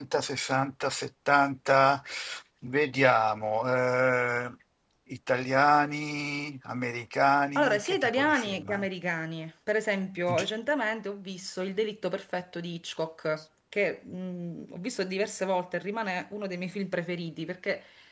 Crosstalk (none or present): present